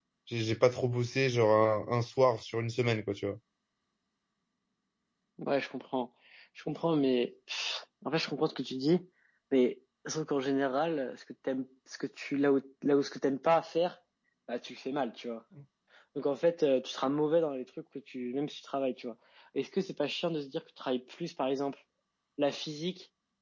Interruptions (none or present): none